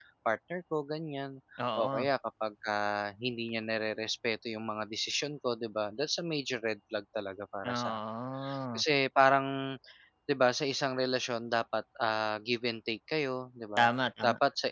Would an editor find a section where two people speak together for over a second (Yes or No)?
No